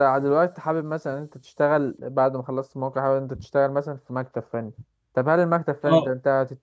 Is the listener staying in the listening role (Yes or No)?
Yes